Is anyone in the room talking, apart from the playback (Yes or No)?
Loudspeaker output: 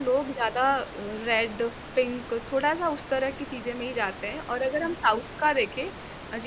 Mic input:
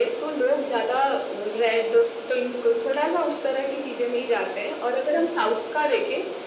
No